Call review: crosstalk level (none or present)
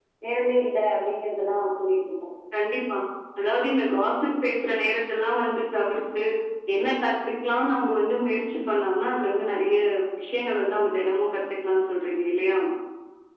none